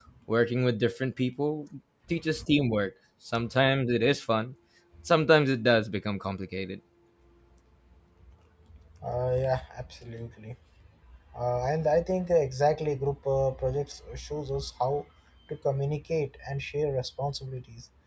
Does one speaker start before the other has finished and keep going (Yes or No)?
No